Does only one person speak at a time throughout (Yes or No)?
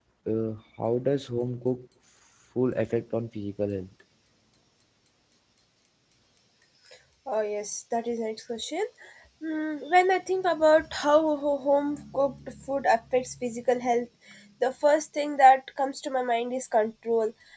Yes